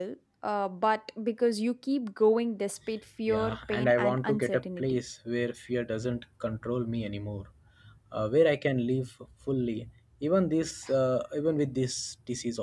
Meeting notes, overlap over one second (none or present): present